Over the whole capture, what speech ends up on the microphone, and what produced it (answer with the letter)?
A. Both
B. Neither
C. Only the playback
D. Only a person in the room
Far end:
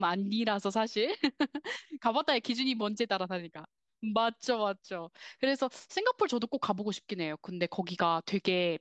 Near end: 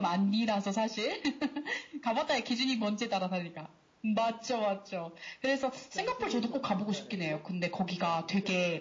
A